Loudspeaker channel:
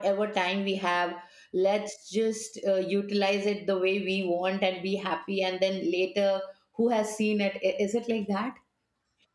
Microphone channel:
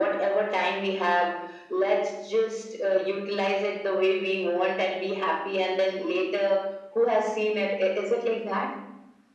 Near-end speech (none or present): none